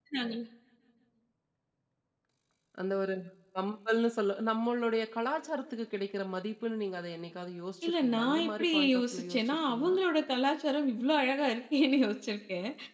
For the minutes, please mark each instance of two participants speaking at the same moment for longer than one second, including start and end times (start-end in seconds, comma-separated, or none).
7.8-9.9